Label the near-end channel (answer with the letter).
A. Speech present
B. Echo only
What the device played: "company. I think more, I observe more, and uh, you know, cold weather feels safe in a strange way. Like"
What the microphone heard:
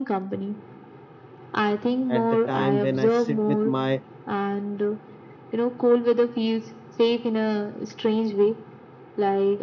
A